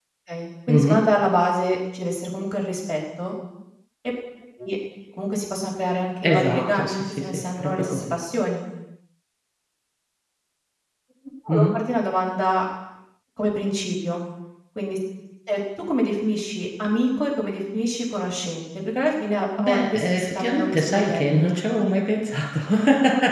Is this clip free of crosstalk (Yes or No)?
No